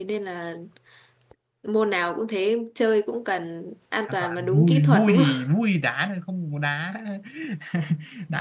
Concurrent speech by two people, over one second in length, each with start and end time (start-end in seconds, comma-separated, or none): 4.1-5.4